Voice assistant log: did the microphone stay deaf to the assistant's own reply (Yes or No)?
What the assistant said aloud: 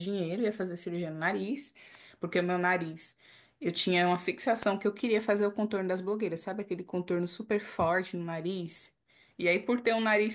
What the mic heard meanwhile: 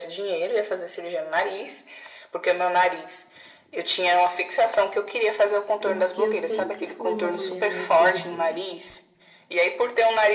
No